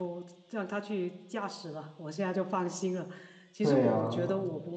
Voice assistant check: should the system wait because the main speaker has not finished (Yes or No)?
Yes